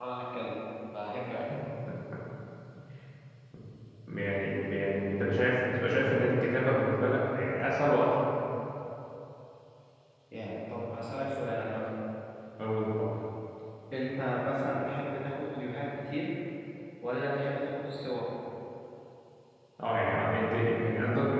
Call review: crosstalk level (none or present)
none